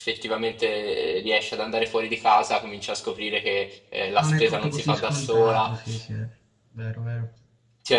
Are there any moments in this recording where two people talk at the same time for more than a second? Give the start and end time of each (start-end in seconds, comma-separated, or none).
4.2-5.7